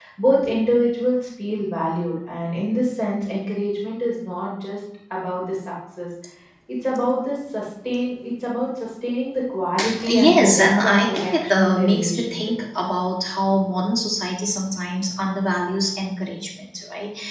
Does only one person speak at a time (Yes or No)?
No